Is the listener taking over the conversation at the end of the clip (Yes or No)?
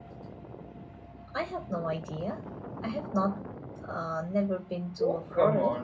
Yes